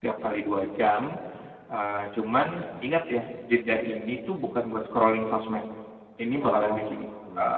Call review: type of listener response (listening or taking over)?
listening